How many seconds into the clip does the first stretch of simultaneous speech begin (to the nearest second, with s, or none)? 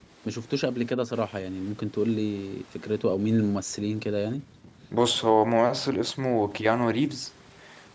none